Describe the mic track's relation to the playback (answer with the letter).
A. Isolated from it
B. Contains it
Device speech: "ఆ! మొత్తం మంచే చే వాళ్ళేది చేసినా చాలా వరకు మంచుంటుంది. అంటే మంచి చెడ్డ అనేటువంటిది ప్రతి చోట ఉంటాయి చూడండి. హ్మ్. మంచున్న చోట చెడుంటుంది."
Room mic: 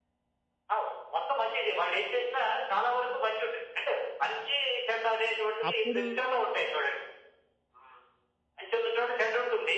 B